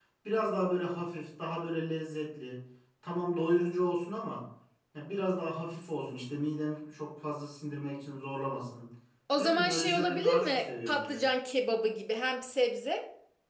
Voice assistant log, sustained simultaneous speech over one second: present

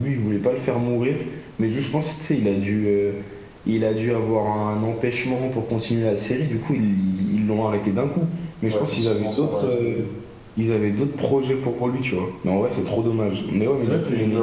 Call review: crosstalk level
present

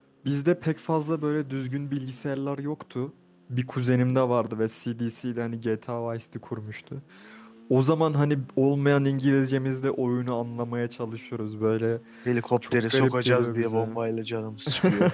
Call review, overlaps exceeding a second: present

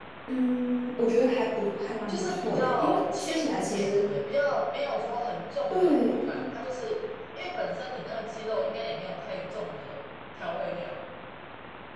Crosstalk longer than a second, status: present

